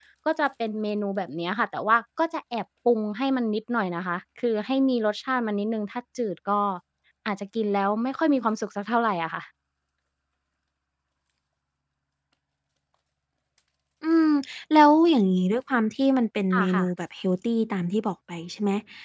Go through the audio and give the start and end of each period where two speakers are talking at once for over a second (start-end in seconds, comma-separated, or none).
none